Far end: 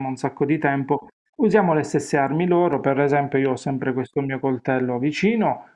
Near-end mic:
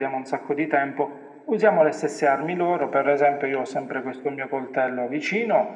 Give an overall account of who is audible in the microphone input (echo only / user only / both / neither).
echo only